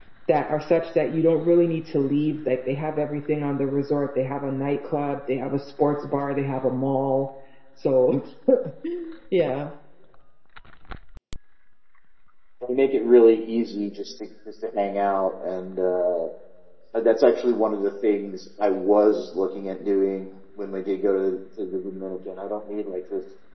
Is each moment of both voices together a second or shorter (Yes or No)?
Yes